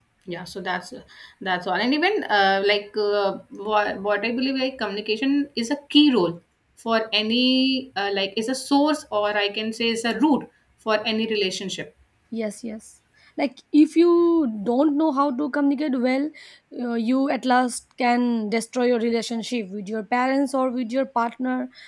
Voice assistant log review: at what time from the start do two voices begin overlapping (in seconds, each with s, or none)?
none